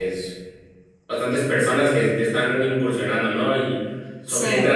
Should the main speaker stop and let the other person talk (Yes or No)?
No